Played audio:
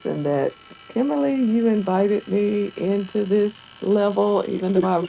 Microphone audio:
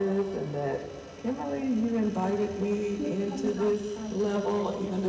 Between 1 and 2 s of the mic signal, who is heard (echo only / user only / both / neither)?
echo only